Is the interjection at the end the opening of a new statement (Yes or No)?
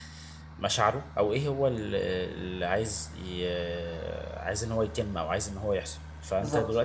No